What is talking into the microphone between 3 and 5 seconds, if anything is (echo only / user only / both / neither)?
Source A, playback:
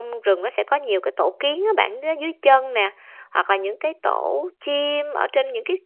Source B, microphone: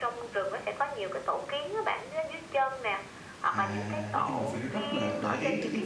both